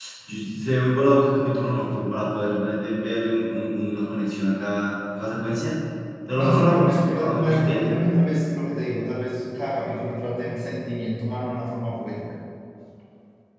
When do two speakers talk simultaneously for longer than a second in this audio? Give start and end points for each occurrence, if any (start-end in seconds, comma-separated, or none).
6.4-7.9